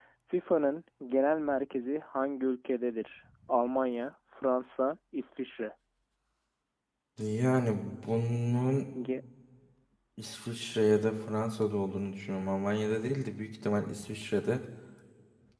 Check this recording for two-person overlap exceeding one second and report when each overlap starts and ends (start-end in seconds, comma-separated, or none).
none